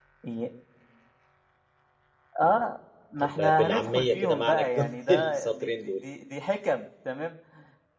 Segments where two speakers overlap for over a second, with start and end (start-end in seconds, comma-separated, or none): 3.2-6.0